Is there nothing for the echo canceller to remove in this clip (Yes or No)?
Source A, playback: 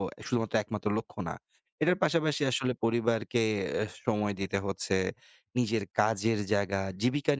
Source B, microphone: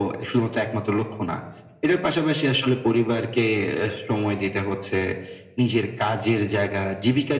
No